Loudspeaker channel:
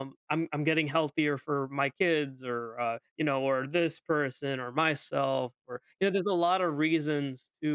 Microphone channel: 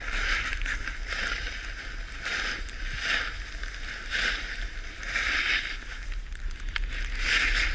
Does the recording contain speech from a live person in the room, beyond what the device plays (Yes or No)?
No